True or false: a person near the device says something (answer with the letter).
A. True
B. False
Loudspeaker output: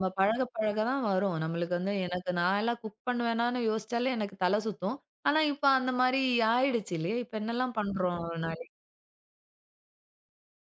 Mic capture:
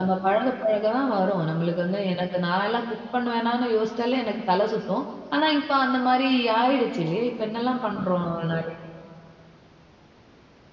B